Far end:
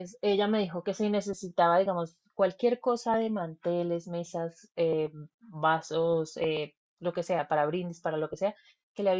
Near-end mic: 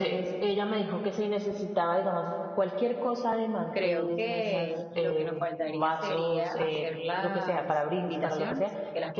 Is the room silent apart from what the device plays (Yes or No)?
No